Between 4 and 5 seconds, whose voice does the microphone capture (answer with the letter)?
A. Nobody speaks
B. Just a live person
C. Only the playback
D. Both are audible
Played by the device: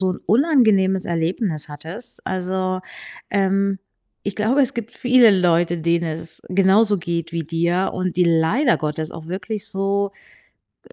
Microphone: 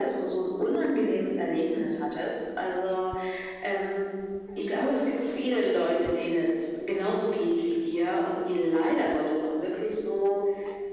C